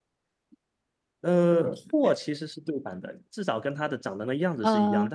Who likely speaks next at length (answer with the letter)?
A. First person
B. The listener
A